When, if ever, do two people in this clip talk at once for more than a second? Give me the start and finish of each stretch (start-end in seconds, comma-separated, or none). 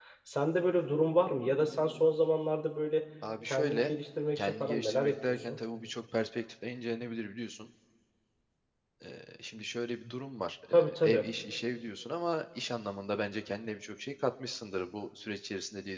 4.4-5.6